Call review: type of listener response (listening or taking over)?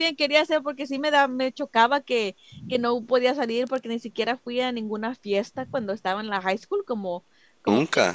listening